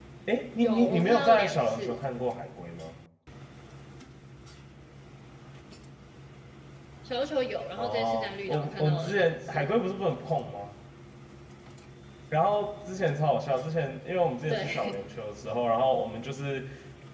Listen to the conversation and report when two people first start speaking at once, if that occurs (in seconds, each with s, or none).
0.6 s